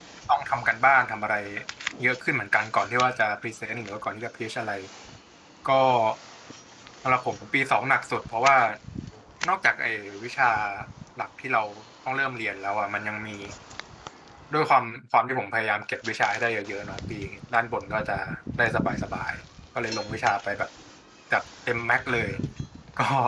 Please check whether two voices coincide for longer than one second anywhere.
No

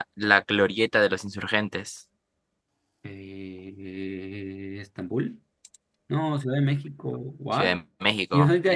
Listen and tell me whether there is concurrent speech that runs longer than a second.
No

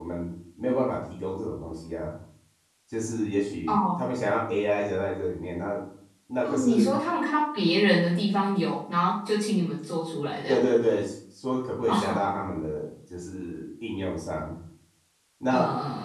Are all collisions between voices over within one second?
Yes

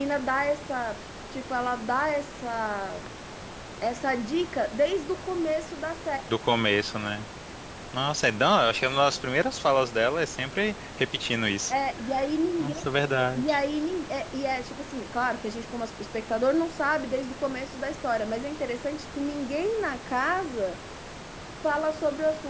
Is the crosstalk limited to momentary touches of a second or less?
Yes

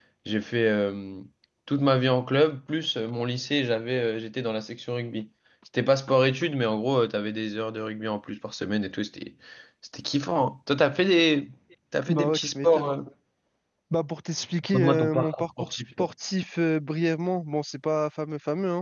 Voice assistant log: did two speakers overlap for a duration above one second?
Yes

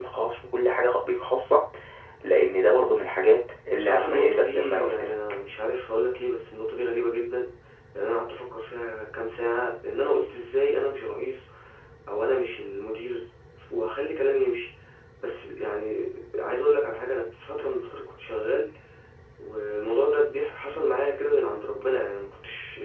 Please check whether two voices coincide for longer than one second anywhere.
Yes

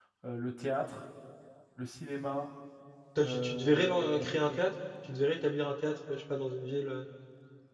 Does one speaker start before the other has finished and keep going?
Yes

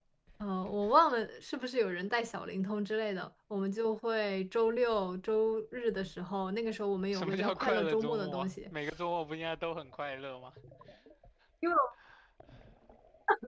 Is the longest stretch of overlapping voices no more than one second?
No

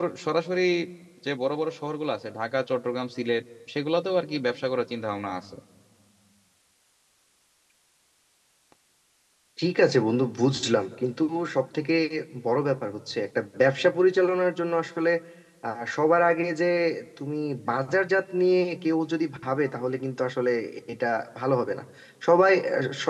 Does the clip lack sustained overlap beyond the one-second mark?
Yes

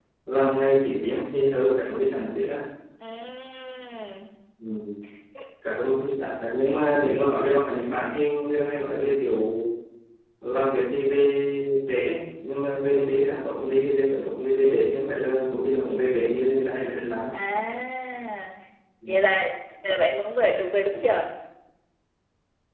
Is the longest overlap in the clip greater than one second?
No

